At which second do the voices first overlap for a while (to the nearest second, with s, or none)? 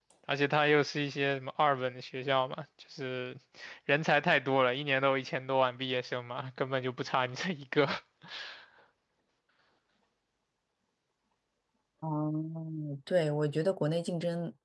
none